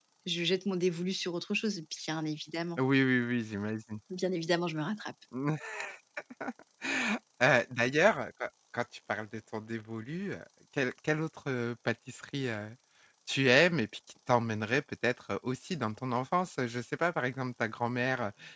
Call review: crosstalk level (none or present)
none